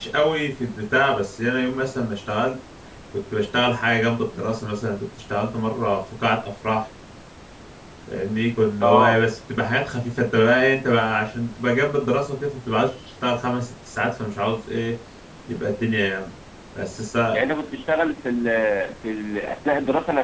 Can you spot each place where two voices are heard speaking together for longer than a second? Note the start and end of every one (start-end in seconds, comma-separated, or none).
none